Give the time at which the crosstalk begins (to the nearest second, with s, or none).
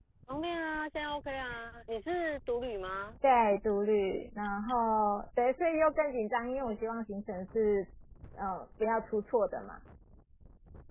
none